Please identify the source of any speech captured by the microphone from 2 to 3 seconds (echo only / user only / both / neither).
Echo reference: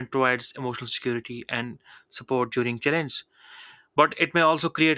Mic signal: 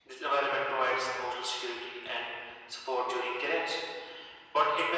echo only